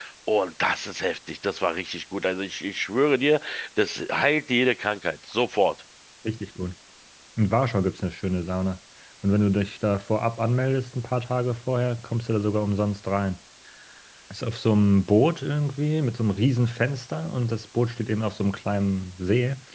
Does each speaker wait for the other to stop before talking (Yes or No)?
Yes